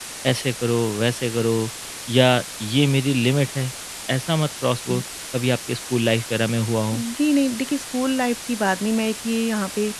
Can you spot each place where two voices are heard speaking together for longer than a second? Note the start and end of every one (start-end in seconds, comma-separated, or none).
none